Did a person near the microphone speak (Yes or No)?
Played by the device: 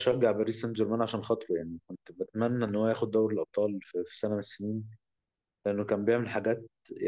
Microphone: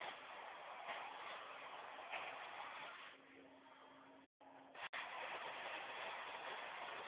No